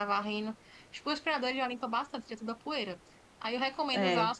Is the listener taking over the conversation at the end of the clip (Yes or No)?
No